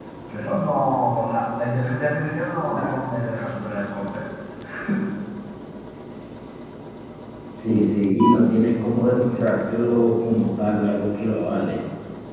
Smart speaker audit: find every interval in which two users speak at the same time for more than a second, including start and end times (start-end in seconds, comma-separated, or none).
none